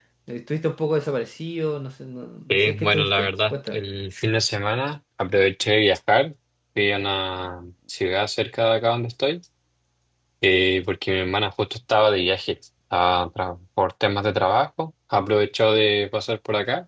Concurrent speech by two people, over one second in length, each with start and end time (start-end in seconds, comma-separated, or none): 2.5-3.8